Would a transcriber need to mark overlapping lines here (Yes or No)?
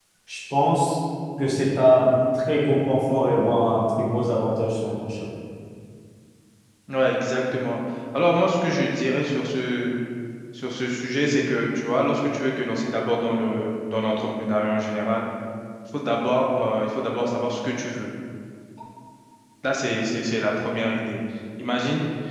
No